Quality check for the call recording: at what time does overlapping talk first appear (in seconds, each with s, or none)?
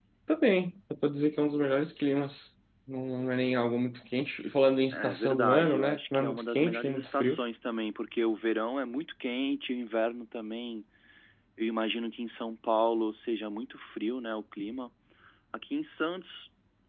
4.9 s